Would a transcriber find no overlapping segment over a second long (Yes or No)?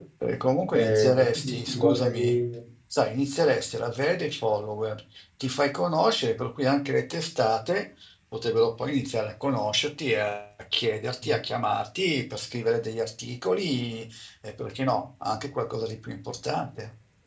No